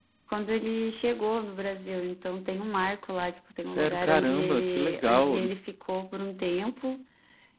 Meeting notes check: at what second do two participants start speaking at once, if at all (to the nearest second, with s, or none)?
4 s